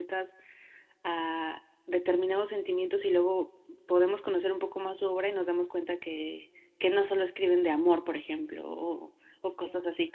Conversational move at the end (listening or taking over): listening